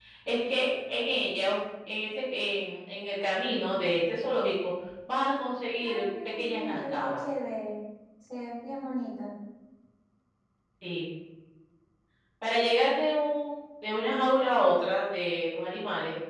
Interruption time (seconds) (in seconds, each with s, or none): 5.8 s